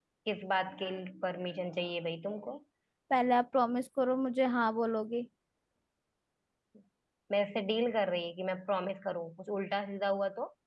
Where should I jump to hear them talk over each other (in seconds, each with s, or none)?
none